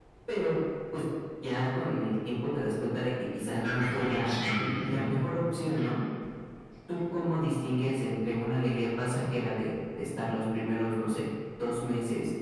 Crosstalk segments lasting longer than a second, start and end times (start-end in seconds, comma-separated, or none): 3.6-5.1